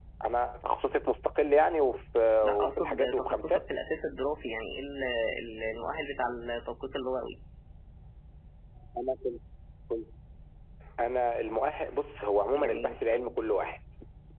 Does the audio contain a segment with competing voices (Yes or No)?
Yes